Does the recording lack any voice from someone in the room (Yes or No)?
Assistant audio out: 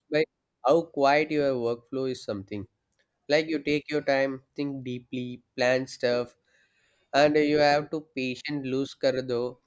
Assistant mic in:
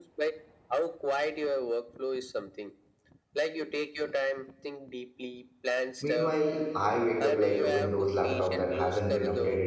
No